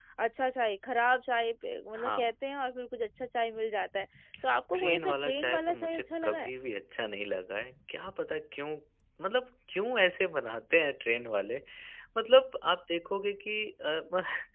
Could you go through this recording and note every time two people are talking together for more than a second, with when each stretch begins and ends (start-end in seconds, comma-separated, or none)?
4.7-6.5